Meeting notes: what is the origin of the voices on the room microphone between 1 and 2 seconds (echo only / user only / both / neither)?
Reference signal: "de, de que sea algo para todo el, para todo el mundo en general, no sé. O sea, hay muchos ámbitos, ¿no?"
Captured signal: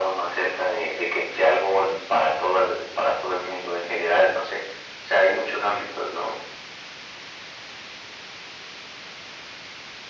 echo only